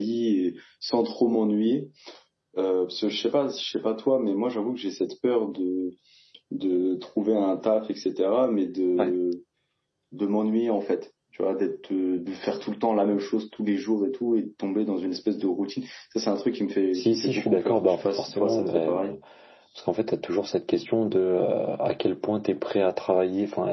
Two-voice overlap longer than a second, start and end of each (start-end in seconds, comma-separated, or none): 16.9-19.1